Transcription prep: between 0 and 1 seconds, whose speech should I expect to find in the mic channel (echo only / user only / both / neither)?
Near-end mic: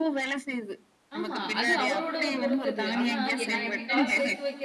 echo only